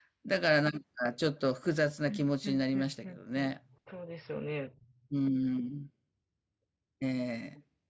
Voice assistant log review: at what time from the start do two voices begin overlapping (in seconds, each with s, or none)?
2.1 s